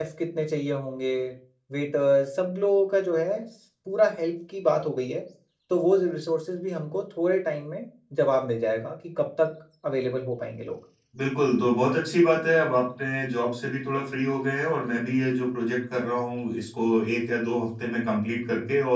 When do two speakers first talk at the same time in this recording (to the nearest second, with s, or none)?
none